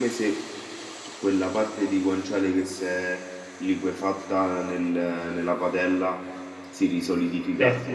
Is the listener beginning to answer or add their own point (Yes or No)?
No